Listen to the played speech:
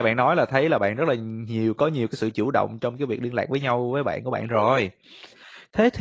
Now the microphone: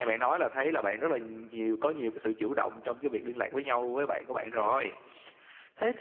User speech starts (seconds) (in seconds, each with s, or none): none